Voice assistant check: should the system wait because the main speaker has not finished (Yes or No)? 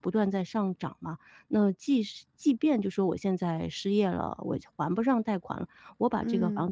Yes